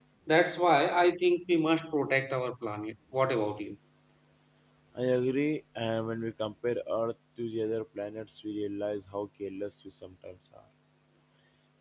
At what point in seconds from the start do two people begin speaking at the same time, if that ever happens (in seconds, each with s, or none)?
none